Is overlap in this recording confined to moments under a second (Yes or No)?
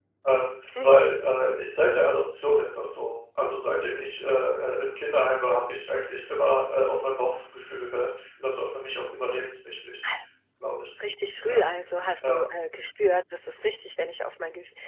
Yes